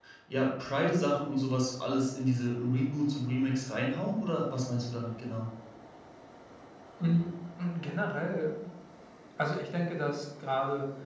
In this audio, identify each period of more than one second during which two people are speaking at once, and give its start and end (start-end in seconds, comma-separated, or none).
none